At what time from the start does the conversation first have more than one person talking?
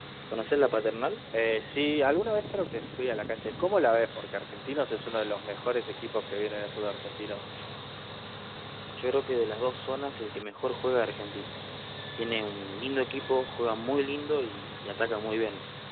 none

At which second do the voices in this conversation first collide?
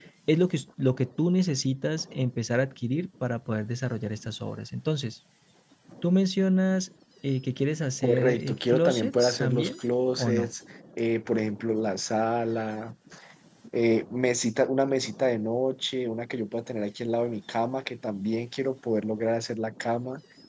8.0 s

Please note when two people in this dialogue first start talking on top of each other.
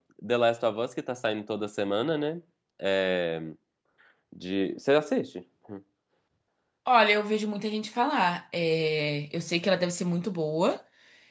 none

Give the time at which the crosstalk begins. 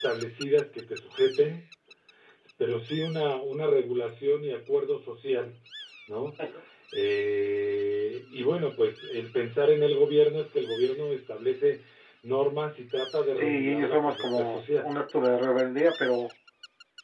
13.3 s

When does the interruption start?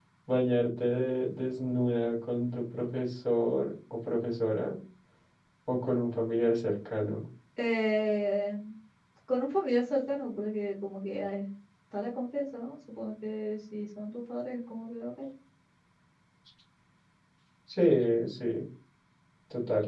none

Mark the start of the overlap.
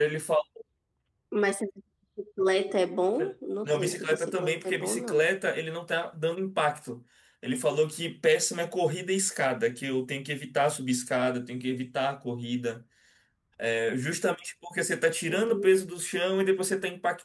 3.6 s

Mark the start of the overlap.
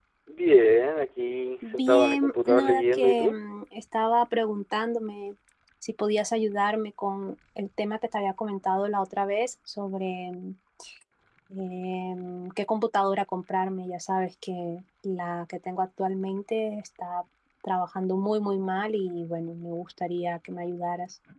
1.6 s

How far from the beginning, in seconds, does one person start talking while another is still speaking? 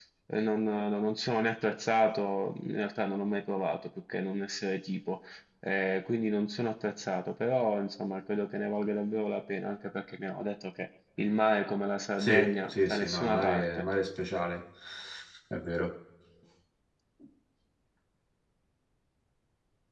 12.2 s

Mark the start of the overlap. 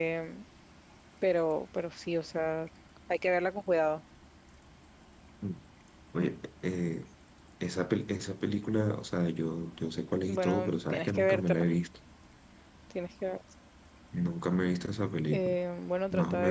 10.2 s

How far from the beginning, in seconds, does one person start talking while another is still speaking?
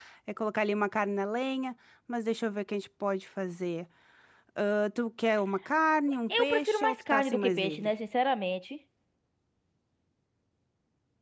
6.3 s

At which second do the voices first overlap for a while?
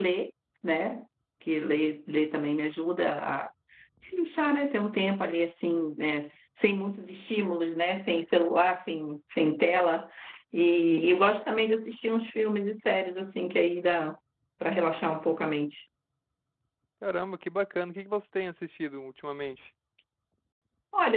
none

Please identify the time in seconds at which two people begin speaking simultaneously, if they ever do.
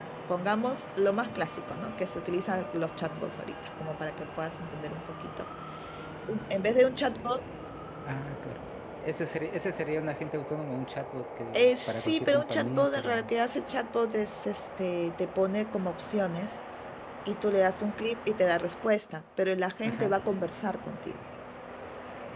11.5 s

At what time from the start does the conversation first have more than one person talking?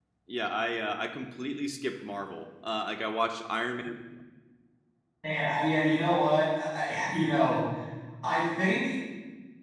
none

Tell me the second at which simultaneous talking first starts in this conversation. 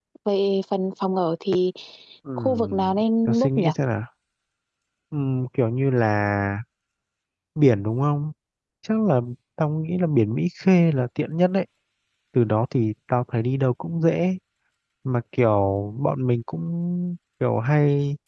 2.4 s

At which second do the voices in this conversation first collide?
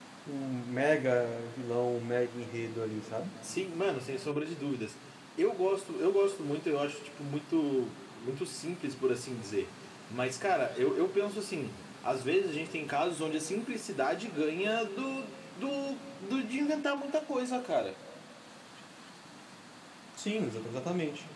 none

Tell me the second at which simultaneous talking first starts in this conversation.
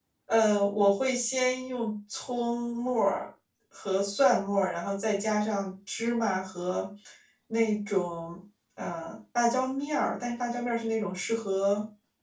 none

